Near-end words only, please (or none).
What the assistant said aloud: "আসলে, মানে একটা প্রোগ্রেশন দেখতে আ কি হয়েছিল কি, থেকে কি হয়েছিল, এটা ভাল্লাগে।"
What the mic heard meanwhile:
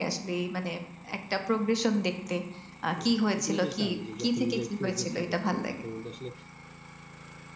না, এটা কিন্তু বেশ দারুণ যে, যখন নিজের progress দেখছেন, তখন কিন্তু আসলে